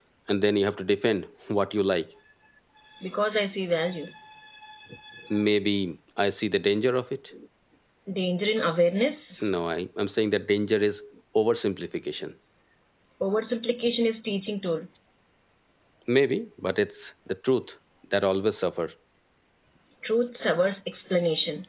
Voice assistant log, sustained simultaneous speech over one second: none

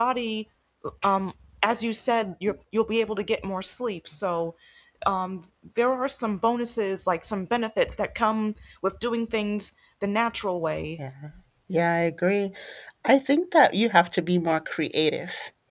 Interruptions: none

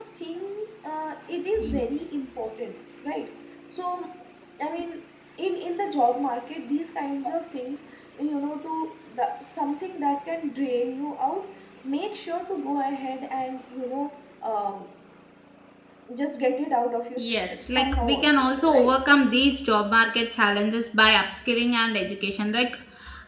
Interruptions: present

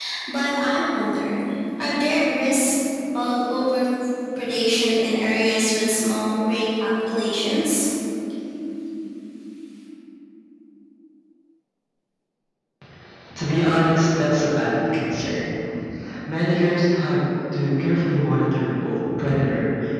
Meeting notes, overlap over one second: none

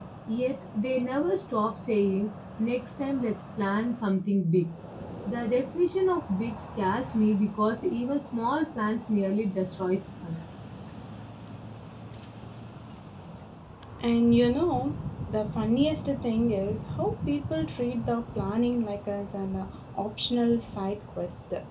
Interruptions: none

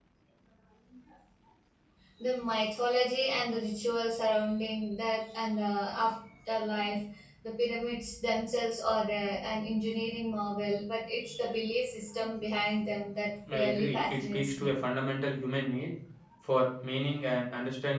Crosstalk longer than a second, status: present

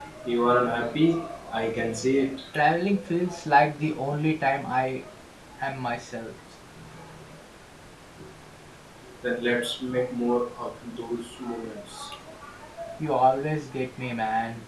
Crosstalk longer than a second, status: none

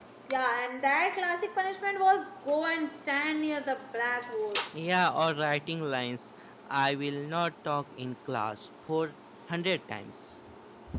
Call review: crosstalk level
none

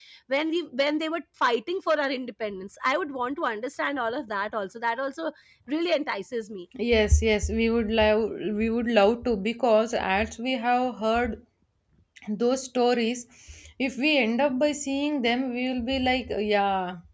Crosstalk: none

